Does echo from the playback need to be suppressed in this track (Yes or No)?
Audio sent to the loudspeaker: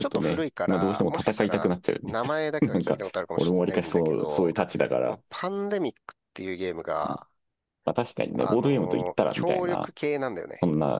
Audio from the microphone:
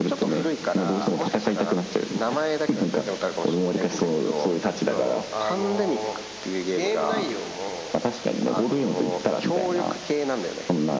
Yes